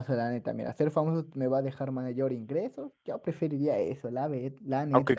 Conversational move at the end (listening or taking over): taking over